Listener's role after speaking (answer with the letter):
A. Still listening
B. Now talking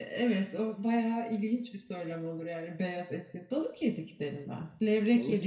A